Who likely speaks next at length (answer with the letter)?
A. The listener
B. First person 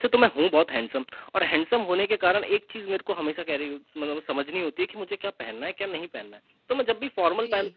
B